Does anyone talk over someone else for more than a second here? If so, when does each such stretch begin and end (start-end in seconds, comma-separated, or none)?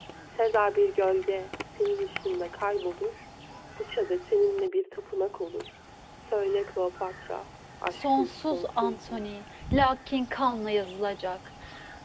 8.0-9.2